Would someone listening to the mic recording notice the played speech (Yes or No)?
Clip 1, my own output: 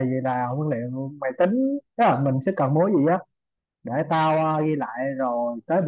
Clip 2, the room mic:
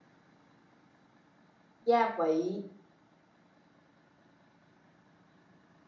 No